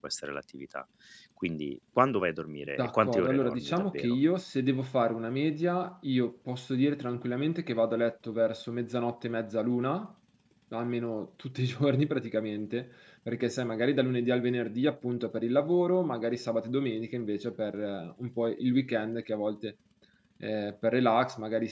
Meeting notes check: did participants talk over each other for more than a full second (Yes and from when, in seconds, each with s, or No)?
Yes, from 2.8 s